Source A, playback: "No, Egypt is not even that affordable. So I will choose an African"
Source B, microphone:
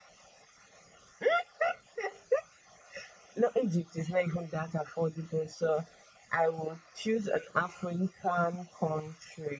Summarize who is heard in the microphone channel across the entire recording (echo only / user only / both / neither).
echo only